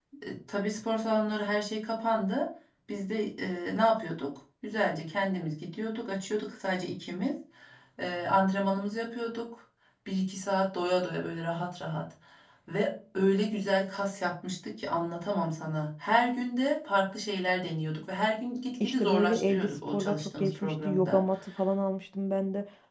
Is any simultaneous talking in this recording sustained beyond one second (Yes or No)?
Yes